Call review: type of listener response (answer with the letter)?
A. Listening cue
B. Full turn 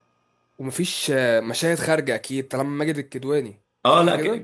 B